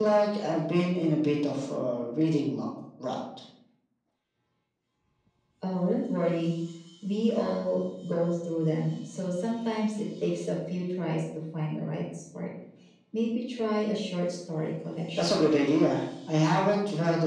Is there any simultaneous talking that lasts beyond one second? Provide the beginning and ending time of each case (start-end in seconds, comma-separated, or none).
none